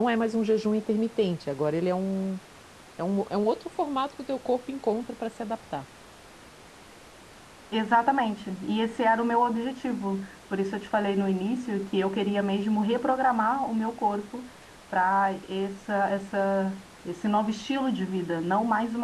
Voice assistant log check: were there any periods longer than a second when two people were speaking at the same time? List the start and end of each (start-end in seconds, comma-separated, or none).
none